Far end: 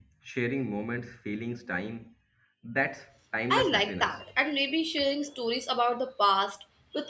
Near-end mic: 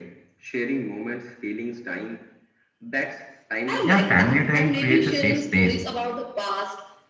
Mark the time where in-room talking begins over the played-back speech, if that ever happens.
3.8 s

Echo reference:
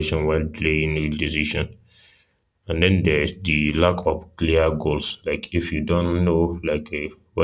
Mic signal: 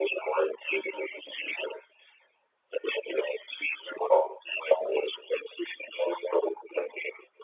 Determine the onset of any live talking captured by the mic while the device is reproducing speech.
none

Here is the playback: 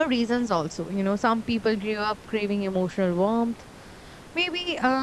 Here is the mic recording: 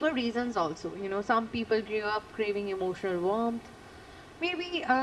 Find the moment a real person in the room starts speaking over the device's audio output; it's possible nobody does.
none

